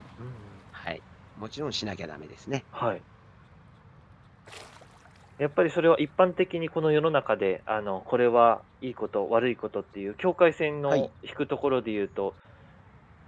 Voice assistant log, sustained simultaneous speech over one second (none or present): none